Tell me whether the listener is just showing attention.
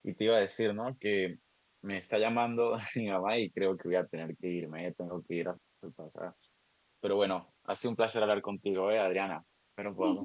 No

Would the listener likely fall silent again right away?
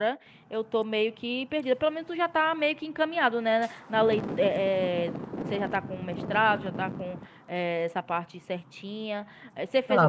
No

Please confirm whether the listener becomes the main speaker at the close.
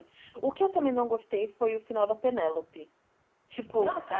No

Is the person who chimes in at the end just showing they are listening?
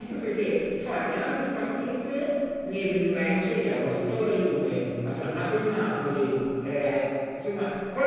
Yes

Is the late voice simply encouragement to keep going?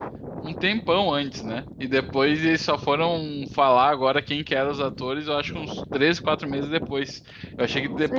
Yes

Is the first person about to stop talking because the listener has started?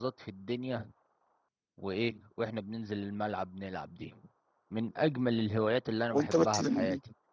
Yes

